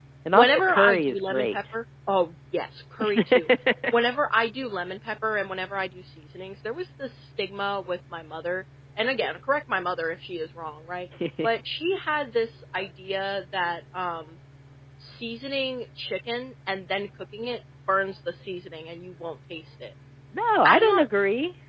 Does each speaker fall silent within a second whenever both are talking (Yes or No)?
No